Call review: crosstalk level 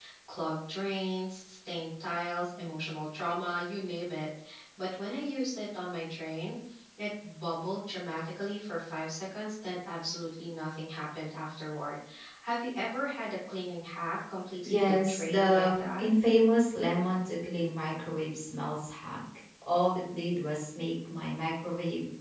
present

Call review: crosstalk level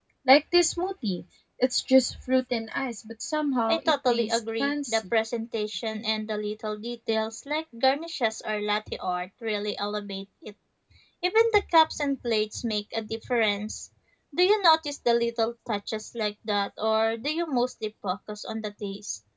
present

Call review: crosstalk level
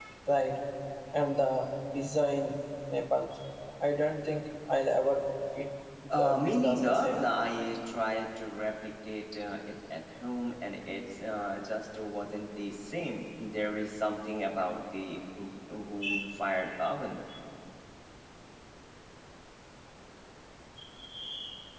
present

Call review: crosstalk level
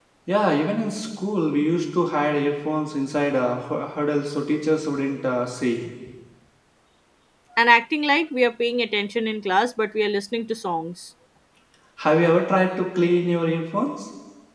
none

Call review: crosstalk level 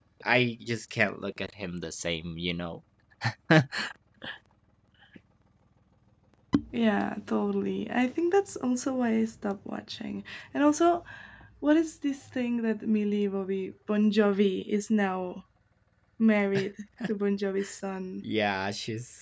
none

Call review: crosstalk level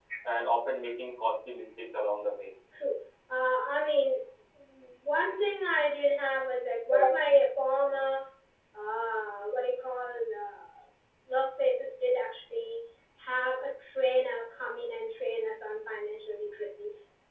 none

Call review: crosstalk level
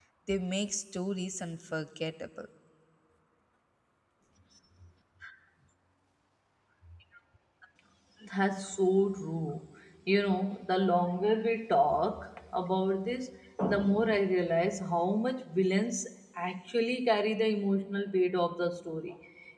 none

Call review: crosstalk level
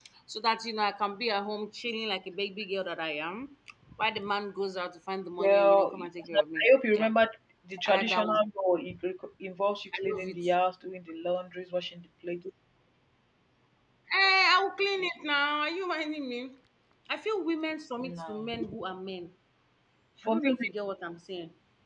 present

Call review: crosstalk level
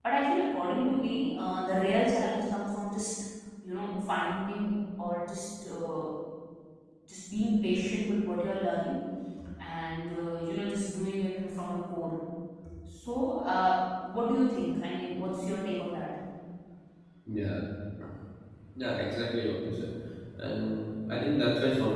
none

